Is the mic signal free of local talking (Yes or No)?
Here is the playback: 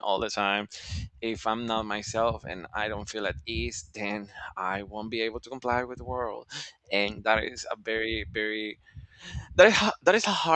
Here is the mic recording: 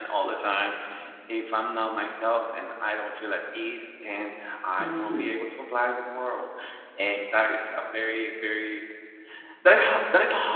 No